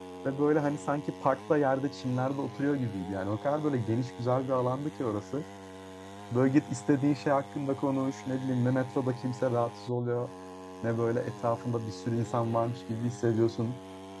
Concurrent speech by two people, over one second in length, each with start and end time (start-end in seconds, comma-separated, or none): none